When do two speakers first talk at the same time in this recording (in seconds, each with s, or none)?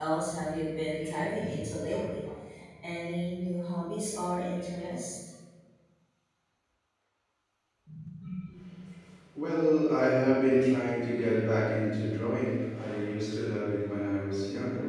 none